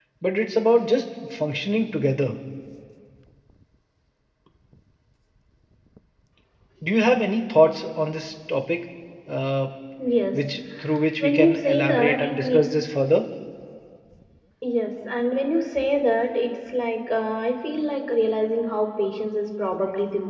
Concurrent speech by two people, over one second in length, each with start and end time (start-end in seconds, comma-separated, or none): 11.2-12.6